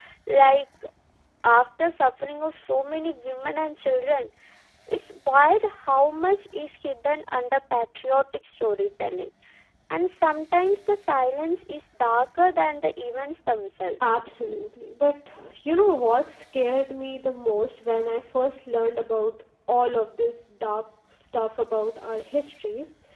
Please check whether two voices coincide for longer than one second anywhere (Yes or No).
No